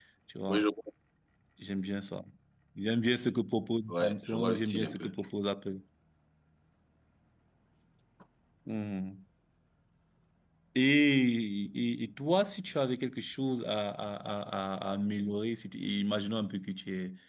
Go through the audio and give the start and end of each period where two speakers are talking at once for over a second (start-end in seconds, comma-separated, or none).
3.9-5.1